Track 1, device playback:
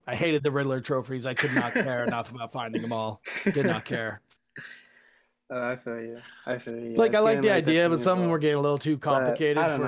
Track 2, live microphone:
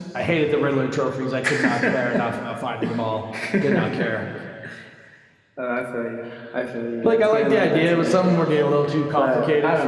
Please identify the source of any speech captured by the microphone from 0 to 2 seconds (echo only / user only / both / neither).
echo only